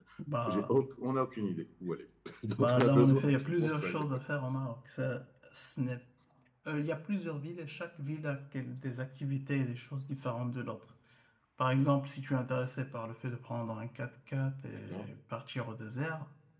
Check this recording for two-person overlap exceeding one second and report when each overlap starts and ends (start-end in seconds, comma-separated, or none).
2.6-4.0